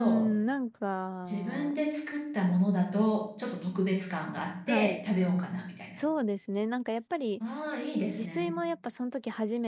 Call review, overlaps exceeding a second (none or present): none